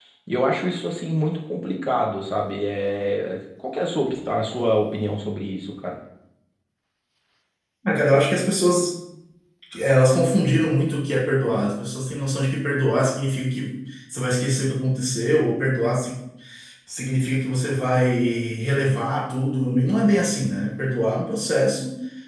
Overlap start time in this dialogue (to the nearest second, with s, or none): none